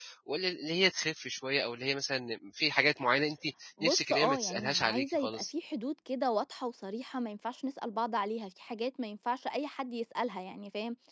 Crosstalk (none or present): present